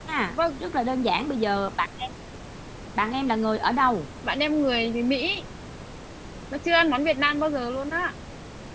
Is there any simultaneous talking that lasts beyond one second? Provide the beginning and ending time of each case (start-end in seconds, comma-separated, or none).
none